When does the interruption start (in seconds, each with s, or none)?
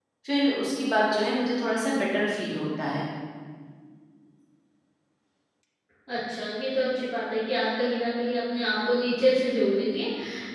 none